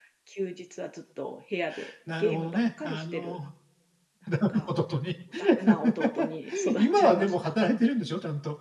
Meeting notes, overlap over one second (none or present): present